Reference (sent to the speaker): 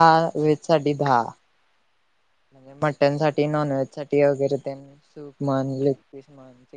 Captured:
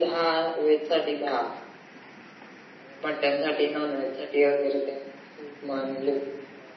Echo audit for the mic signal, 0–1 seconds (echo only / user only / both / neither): echo only